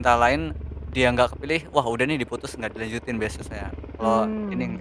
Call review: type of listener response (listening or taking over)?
taking over